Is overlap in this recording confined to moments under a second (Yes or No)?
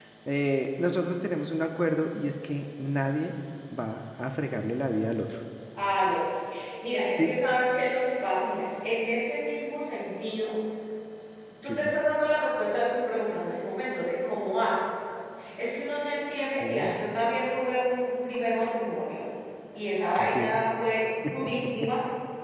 Yes